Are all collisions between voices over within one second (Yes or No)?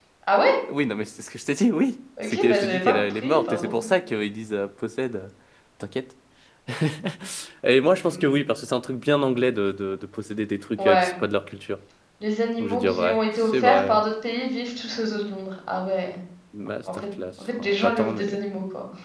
No